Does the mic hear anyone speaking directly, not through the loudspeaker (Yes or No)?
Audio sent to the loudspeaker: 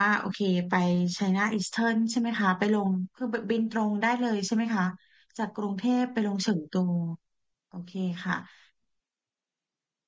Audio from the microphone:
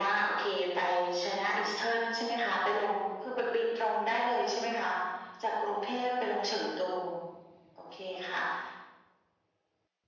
No